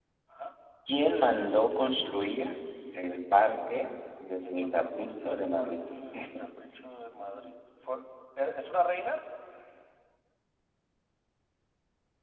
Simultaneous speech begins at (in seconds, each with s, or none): 4.5 s